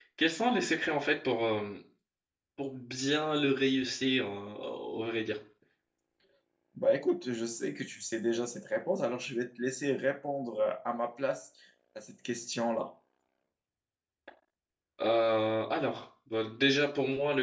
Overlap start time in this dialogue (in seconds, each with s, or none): none